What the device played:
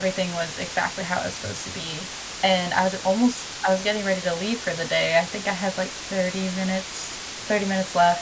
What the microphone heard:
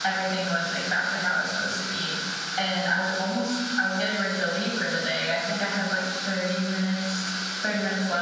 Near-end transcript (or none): none